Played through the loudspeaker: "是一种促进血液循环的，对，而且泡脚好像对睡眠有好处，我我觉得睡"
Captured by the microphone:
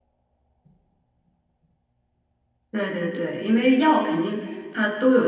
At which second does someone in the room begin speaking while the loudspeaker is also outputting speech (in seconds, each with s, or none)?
2.7 s